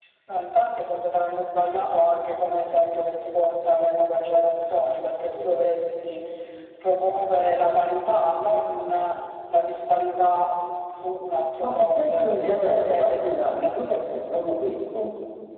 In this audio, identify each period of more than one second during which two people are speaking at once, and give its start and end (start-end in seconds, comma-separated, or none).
11.6-13.4